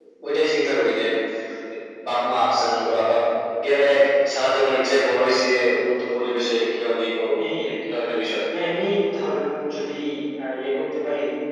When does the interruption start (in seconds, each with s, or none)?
none